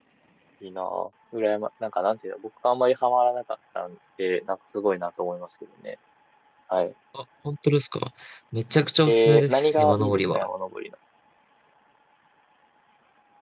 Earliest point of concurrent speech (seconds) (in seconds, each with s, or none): 9.1 s